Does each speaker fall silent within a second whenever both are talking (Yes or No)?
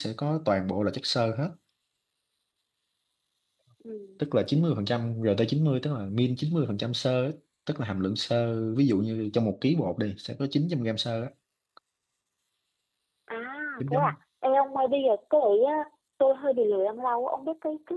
Yes